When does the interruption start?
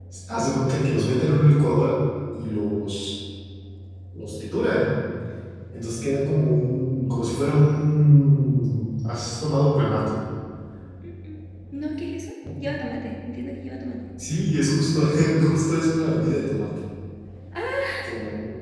none

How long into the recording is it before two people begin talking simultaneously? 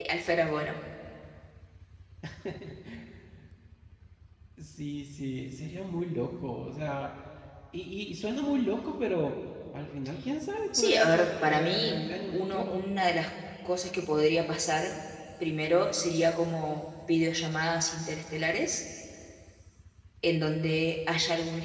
10.7 s

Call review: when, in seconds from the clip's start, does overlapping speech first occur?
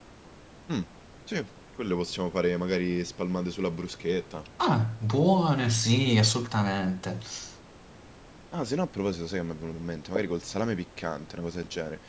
none

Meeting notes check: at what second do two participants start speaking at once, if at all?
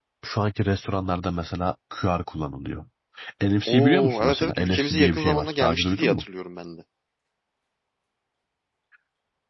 3.7 s

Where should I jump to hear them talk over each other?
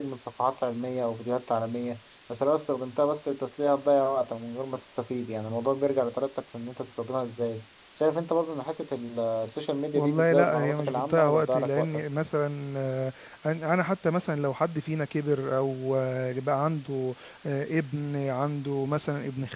9.9 s

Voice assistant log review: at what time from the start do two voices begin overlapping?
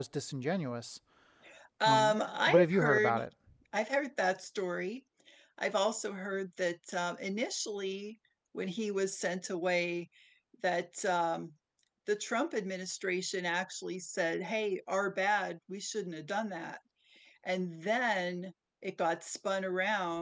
1.9 s

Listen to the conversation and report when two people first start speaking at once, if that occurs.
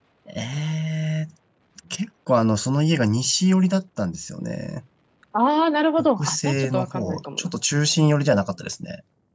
6.0 s

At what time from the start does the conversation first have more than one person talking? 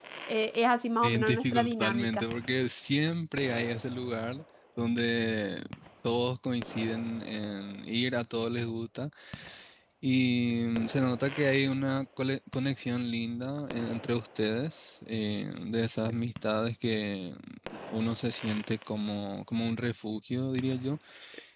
1.0 s

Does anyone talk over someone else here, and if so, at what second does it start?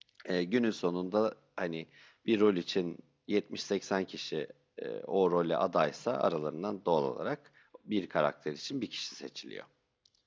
none

